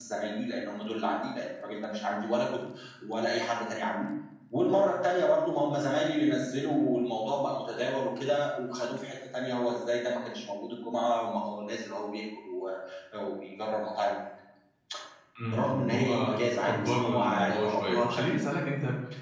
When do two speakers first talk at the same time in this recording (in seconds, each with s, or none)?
15.4 s